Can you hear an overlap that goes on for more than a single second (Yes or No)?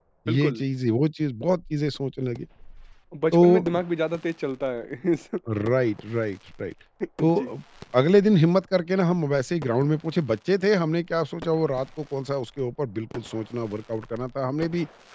No